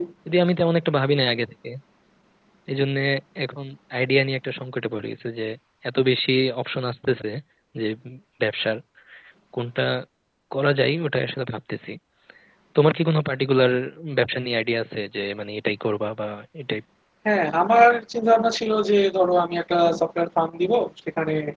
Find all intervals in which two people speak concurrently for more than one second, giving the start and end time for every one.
none

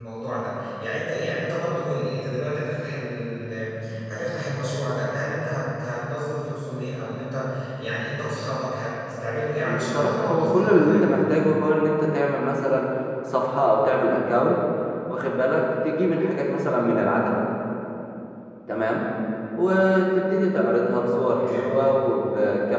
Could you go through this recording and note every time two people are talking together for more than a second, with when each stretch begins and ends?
9.6-11.1

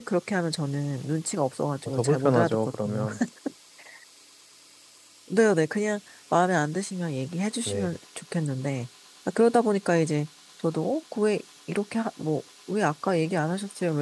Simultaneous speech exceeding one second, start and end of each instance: 1.9-3.1

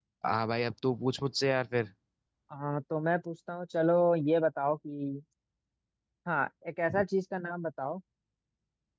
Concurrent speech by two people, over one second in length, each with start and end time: none

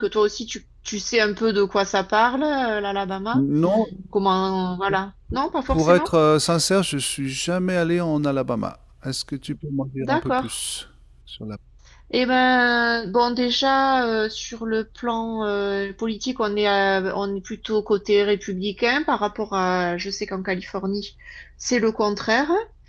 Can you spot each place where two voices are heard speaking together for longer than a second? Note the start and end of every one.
none

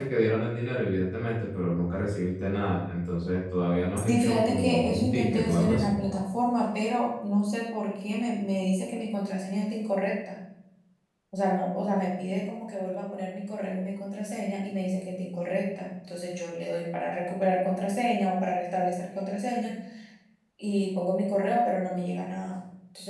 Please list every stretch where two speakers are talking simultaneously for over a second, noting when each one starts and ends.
4.1-5.9

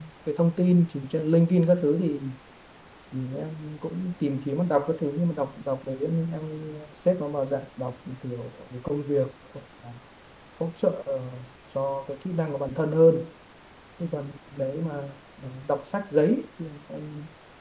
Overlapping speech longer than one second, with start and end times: none

